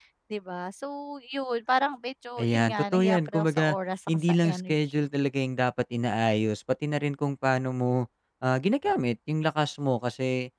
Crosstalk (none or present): present